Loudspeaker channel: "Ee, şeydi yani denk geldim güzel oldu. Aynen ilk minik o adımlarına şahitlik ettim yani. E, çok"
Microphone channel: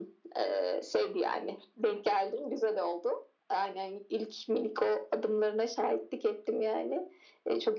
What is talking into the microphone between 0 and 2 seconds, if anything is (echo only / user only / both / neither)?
echo only